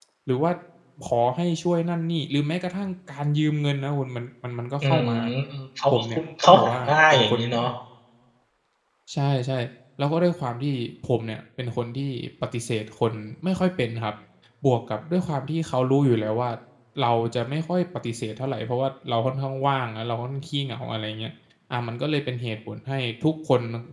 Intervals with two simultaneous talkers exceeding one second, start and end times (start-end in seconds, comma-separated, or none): 5.9-7.4